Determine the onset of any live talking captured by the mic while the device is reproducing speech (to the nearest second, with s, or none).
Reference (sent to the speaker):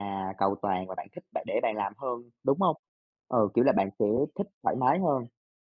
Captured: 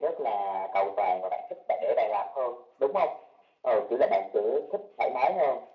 none